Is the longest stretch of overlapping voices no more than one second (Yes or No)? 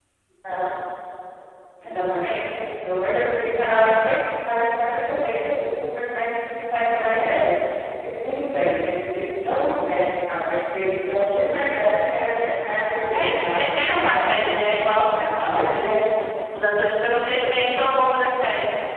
No